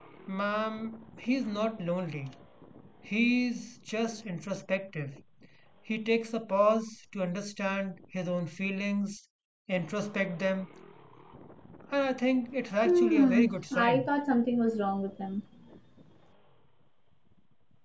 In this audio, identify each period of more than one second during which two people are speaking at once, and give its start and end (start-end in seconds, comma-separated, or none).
12.8-14.1